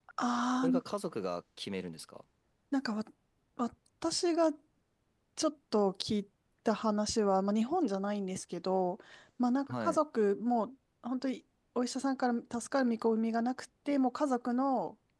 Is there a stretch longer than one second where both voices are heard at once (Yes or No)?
No